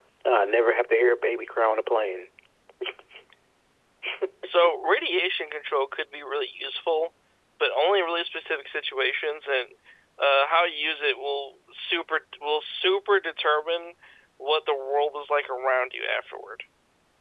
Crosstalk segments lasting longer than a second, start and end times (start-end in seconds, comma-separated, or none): none